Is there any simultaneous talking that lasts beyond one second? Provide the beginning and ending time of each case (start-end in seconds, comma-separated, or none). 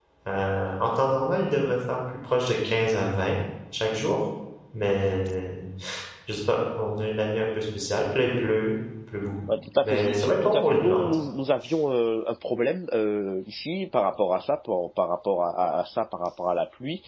9.8-11.0